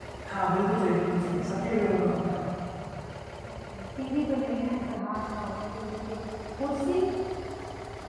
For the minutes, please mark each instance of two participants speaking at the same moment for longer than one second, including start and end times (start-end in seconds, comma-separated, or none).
1.2-2.4